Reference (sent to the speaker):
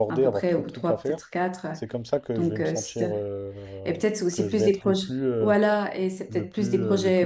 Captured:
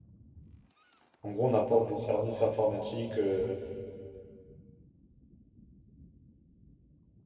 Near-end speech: present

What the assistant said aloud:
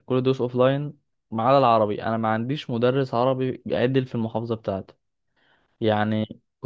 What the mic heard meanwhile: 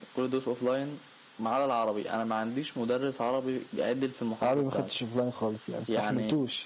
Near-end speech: present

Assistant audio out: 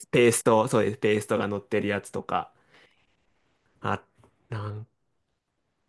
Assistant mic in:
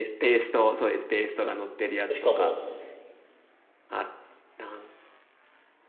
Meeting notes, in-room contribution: present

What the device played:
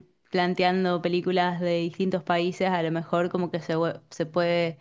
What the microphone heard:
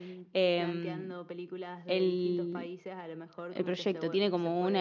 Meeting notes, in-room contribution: present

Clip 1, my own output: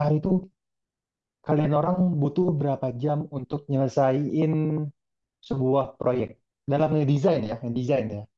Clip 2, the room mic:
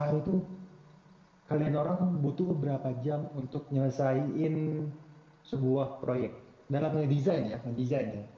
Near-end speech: none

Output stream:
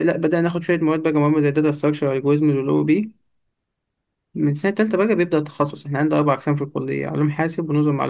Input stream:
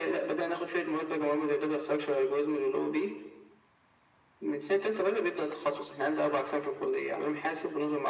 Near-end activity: none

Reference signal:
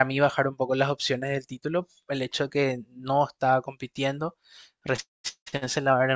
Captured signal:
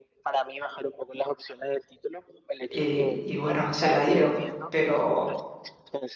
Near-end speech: present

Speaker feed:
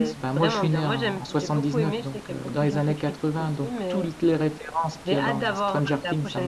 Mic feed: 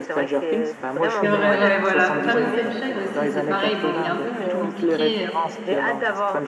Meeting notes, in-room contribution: present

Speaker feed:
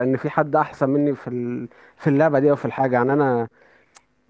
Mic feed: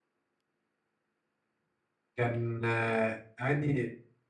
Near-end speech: present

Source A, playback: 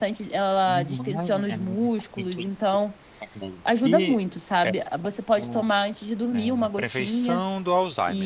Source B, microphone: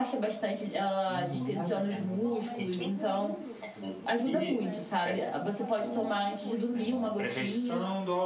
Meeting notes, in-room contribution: present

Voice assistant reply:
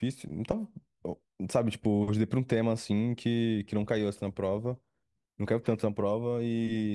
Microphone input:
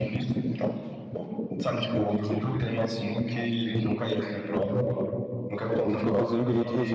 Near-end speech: present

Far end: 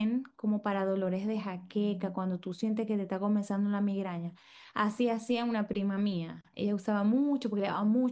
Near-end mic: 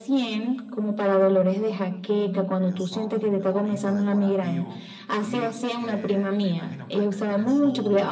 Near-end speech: present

